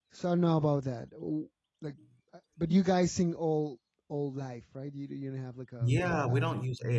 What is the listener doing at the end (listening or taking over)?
taking over